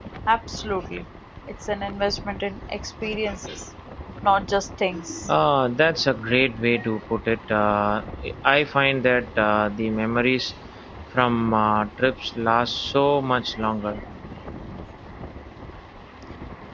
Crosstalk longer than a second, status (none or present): none